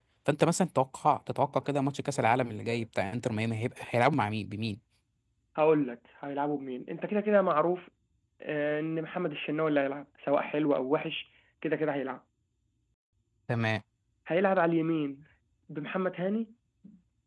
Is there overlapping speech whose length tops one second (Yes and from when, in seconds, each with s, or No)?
No